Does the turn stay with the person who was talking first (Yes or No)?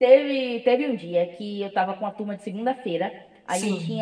Yes